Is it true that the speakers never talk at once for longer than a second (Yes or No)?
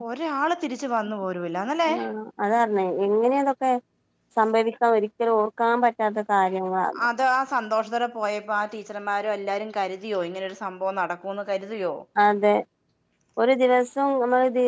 Yes